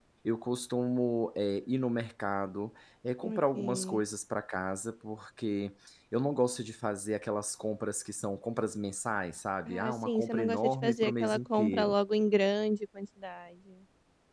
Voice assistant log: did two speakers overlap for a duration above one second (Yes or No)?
Yes